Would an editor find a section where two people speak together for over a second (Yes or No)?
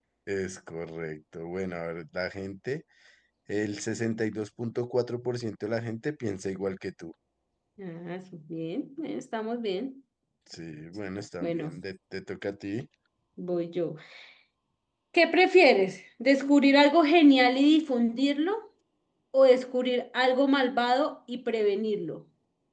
No